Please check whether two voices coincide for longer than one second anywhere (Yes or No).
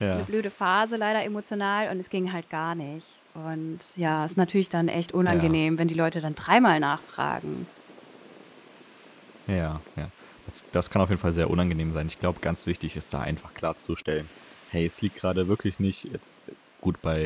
No